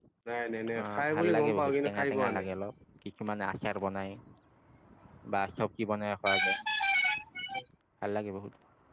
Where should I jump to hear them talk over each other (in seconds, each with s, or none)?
0.8 s